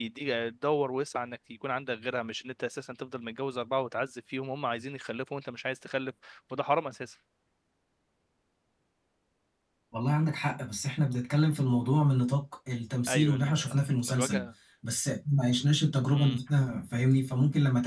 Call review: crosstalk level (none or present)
present